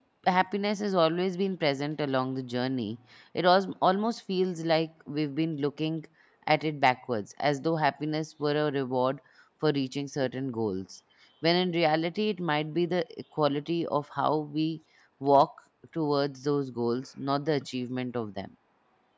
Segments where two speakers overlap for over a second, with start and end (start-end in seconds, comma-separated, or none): none